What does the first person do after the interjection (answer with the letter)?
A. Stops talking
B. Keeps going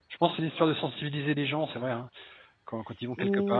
A